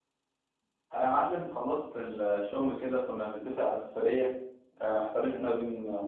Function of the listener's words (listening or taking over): listening